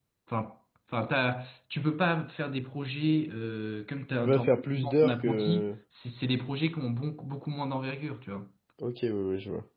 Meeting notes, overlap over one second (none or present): present